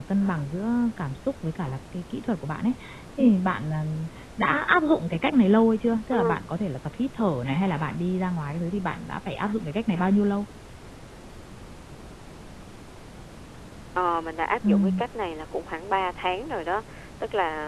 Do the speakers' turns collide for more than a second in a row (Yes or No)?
No